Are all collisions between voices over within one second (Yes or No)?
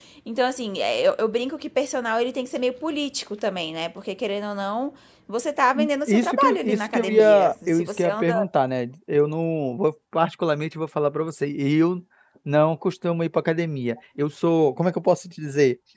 No